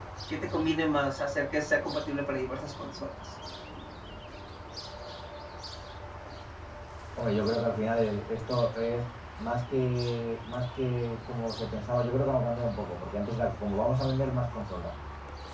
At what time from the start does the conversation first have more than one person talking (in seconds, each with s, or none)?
none